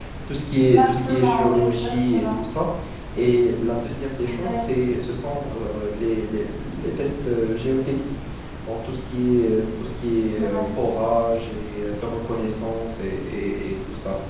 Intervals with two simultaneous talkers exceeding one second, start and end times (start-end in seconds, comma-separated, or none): 0.6-2.3